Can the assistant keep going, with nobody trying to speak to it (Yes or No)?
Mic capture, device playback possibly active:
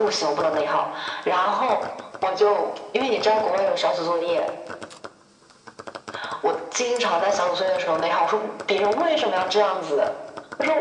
Yes